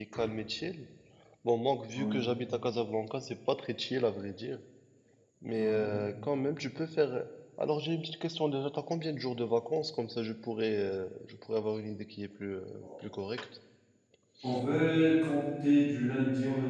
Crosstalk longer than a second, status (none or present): none